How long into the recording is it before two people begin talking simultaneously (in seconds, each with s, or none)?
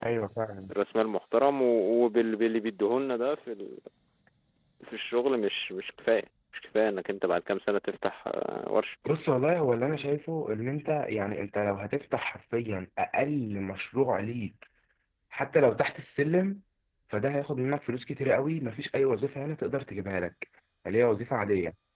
none